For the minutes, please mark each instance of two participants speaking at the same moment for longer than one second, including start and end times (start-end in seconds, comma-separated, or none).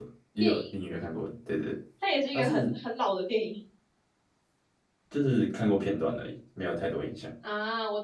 none